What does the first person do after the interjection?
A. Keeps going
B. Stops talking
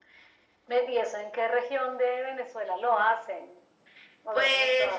B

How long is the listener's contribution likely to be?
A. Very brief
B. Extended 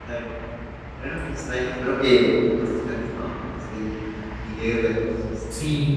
B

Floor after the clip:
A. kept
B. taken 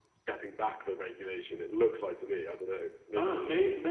B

